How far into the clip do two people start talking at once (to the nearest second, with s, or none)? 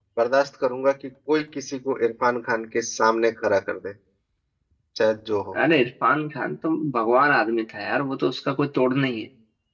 none